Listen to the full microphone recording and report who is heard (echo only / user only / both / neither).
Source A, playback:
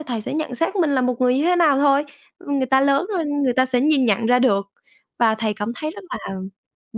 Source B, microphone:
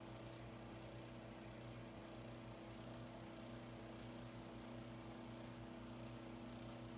neither